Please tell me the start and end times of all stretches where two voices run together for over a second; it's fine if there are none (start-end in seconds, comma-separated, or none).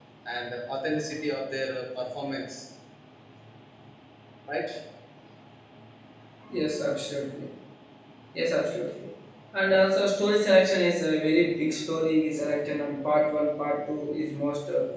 none